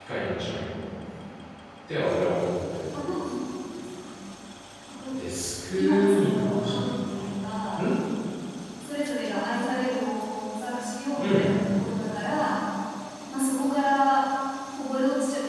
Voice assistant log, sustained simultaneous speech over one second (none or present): present